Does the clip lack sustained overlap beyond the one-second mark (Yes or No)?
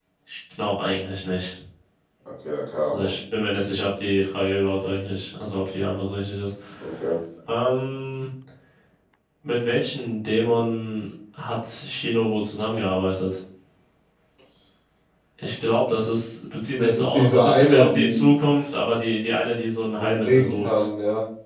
No